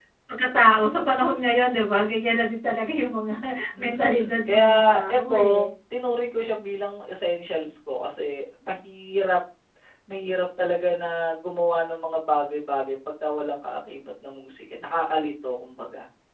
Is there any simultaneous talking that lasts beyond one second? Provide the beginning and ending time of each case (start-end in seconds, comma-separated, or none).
3.8-5.7